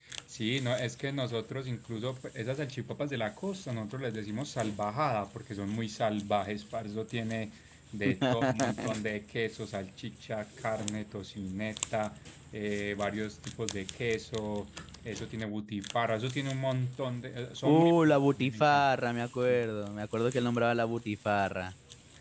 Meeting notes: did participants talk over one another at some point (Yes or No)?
Yes